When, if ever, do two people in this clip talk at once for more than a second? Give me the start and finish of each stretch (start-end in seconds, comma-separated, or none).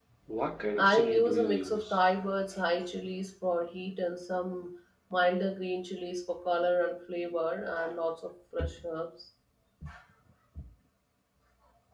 0.8-2.0